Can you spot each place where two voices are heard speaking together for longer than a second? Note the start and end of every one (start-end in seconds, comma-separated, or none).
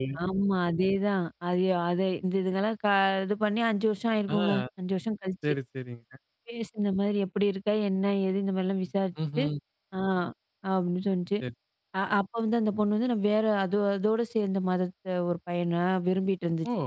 none